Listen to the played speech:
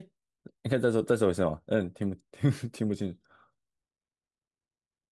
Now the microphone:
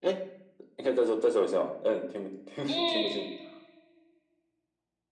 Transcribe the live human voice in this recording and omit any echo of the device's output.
嗯，

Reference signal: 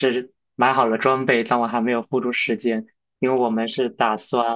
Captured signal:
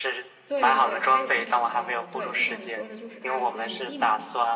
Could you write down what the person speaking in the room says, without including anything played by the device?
对对对，它有那种呃，对，就像你说的，就是它有一个营地嘛，

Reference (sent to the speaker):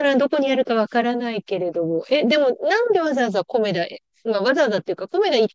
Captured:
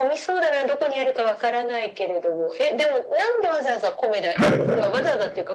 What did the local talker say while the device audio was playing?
はい

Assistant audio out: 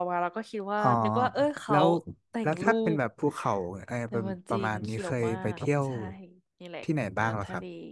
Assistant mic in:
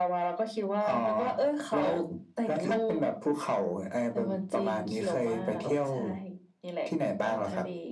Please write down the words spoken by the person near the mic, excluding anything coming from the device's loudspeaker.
none

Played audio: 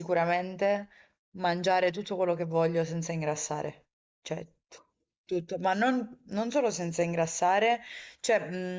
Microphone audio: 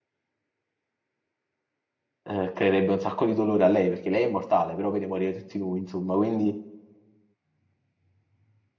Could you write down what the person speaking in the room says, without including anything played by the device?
eh, creerebbe un sacco di dolore a lei, perché lei è immortale, però vede morire tutti noi, insomma, quindi

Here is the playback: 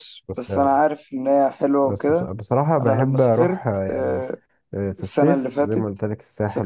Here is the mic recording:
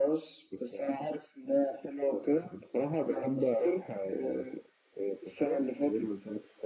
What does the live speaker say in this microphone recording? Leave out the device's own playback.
none

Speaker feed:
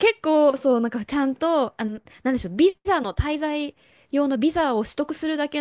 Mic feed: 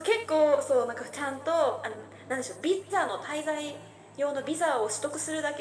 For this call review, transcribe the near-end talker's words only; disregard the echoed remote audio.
none

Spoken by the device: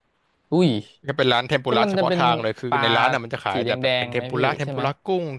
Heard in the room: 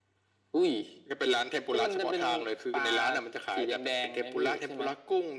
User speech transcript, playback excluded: none

